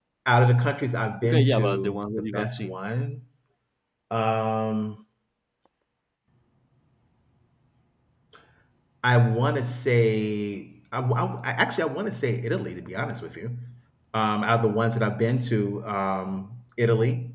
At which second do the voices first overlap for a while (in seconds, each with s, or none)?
1.2 s